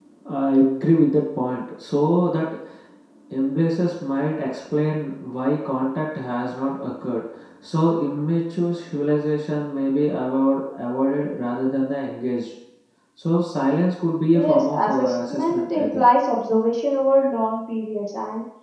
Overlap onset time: 14.3 s

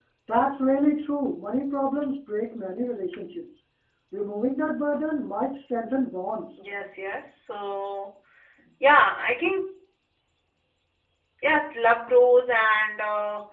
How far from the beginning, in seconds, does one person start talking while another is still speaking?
none

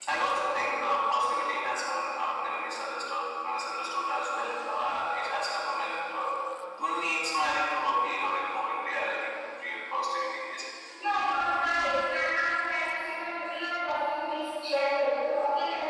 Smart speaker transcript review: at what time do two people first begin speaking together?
none

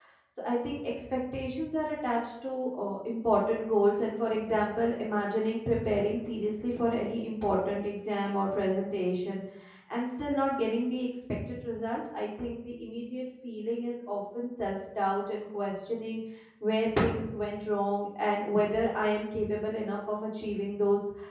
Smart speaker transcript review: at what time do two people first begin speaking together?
none

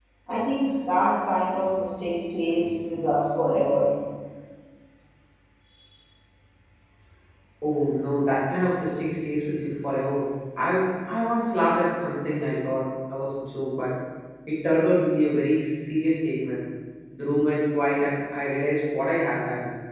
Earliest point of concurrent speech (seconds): none

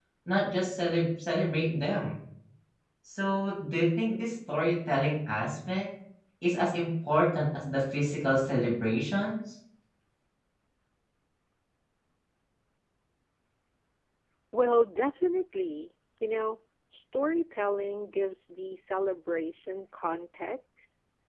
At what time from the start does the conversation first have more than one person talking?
none

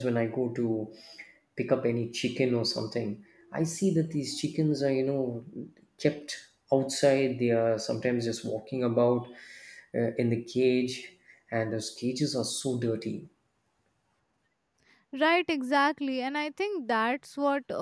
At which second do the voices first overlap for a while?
none

